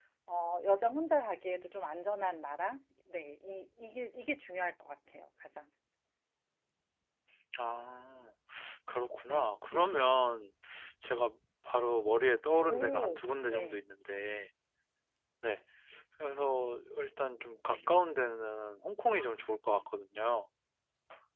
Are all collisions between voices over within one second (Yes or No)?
No